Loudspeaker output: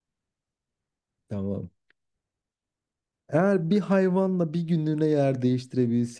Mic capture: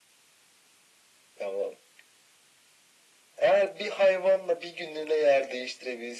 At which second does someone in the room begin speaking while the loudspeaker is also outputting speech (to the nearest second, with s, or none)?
none